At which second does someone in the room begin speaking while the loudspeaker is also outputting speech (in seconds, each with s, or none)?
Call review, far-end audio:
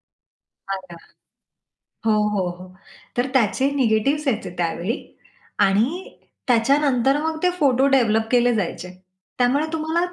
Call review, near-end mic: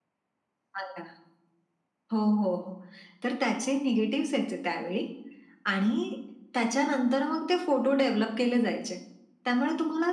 none